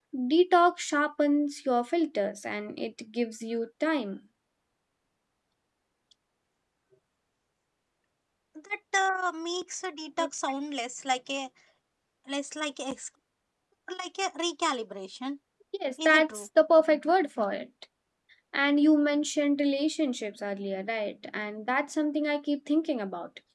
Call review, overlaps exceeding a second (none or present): none